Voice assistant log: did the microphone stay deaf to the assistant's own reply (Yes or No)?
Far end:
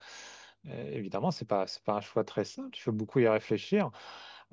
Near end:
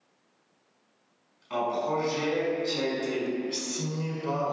Yes